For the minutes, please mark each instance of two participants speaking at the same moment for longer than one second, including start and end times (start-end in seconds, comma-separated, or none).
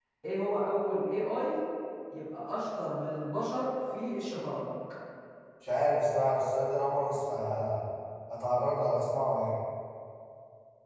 none